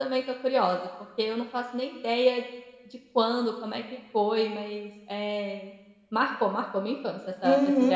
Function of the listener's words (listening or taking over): taking over